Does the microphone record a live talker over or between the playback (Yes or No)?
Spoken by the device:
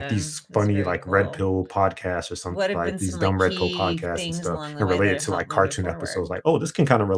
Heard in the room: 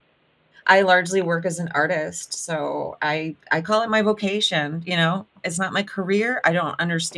Yes